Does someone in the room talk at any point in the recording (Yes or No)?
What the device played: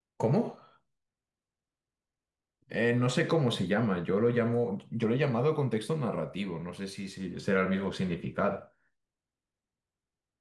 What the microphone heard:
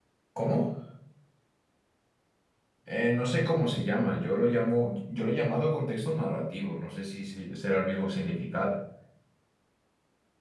No